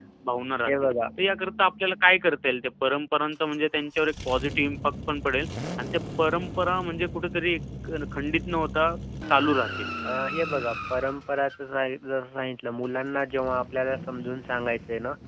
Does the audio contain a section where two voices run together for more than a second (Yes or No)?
No